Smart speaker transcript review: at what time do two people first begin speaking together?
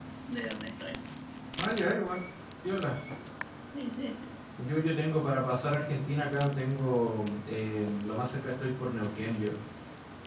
none

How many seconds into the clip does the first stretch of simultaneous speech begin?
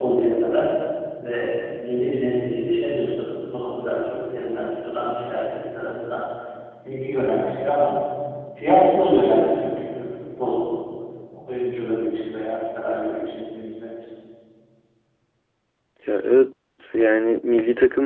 none

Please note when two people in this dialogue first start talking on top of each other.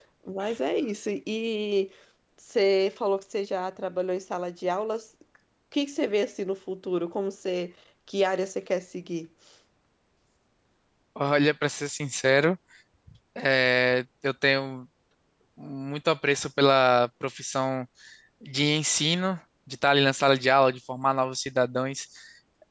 none

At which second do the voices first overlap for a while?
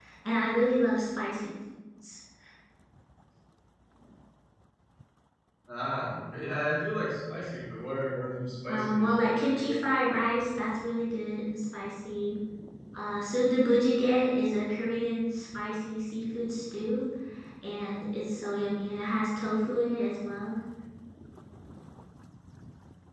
8.7 s

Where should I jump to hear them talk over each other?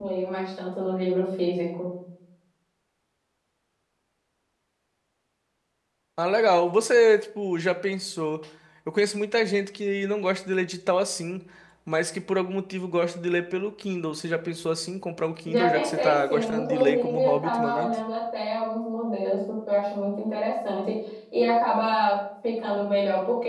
15.5 s

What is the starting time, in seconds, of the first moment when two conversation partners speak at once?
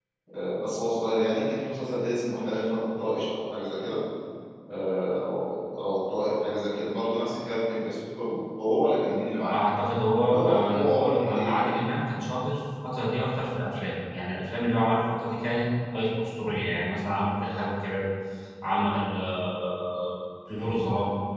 10.2 s

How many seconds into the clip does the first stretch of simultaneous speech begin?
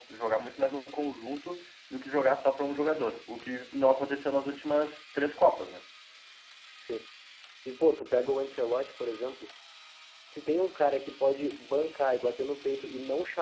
none

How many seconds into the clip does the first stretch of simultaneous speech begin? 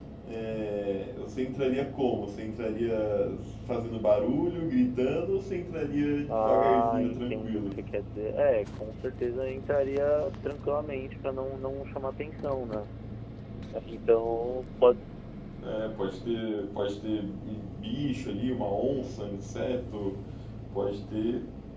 6.3 s

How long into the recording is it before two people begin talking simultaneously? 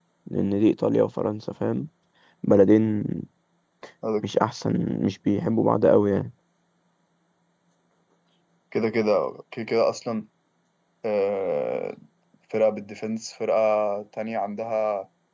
none

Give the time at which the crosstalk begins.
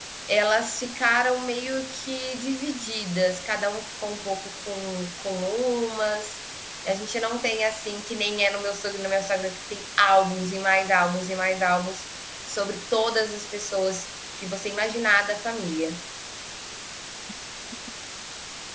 none

